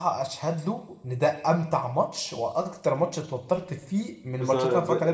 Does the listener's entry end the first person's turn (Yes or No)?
Yes